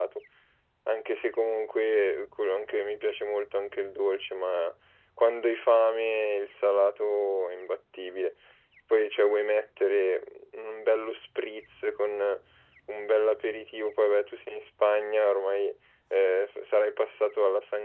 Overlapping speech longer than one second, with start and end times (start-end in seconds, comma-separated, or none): none